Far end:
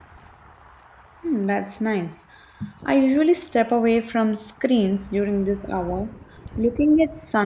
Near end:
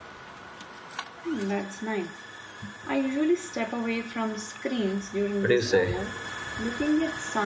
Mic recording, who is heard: both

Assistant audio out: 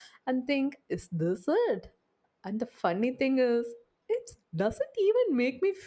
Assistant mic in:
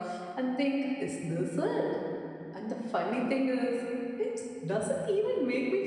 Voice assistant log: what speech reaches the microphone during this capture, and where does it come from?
echo only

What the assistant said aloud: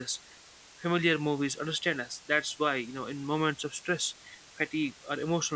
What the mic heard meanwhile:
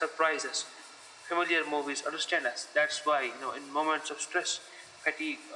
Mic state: echo only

